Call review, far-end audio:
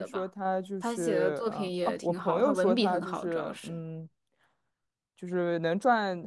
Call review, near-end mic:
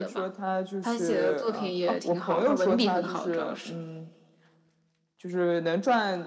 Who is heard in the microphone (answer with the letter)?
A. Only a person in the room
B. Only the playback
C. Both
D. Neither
B